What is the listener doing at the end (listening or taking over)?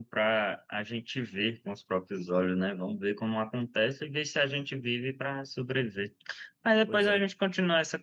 listening